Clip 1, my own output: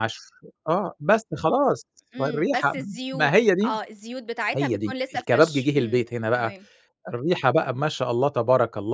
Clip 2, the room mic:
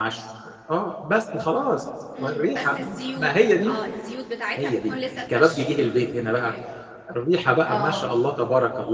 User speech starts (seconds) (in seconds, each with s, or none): 7.7 s